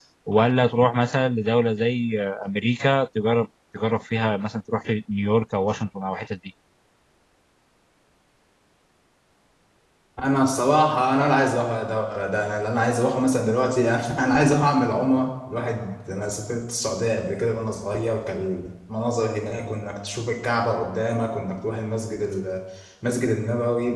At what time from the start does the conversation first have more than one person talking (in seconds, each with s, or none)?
none